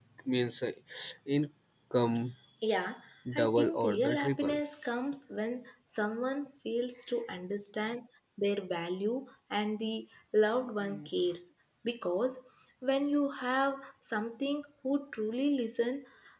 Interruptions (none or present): present